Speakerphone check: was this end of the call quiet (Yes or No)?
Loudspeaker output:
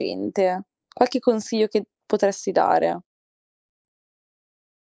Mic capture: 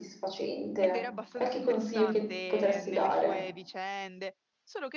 No